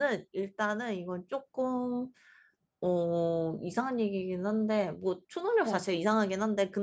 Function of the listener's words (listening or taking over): listening